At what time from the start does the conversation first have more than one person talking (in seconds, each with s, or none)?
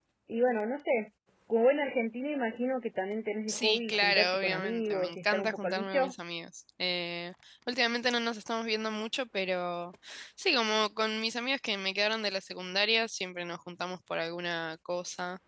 3.5 s